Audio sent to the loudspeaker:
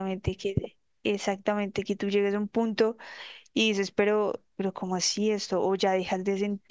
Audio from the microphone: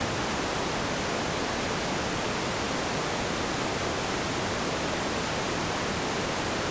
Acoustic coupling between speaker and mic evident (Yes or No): No